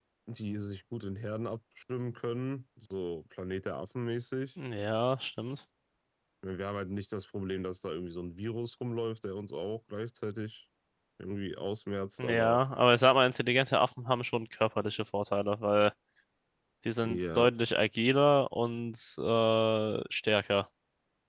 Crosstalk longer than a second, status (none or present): none